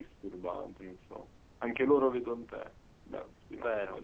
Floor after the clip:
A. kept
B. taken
B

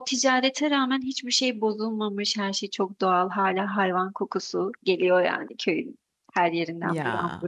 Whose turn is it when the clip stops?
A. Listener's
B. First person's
B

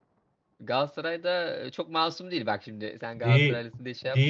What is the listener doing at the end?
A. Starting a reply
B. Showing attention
A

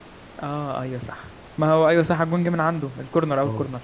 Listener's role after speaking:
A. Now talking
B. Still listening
A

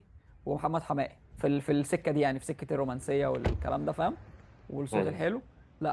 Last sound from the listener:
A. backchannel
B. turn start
A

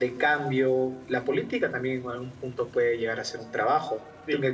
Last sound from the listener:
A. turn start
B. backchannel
A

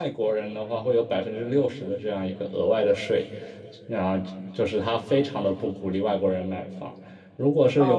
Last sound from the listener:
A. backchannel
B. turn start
A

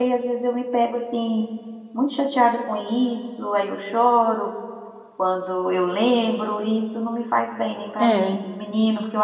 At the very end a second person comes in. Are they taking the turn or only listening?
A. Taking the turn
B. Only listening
B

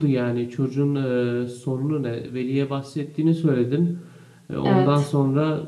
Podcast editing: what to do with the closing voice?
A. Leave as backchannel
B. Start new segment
A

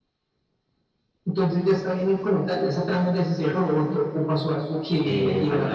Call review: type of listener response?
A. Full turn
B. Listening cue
A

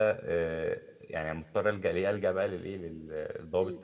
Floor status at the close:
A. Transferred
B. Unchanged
B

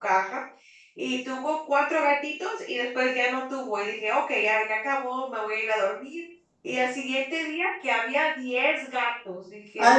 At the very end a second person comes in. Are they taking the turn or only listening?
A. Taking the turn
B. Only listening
B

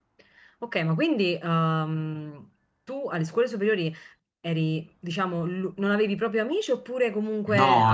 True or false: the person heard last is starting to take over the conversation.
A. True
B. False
A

